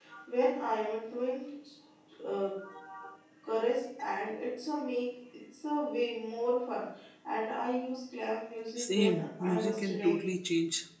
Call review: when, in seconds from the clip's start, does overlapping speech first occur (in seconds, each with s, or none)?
8.8 s